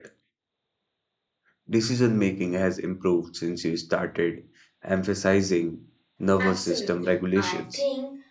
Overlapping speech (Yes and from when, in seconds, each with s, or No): Yes, from 6.4 s